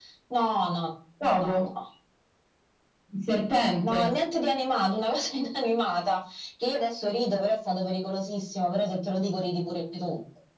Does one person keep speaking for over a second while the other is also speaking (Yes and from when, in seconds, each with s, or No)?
No